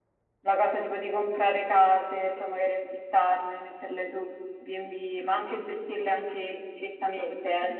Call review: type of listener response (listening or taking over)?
taking over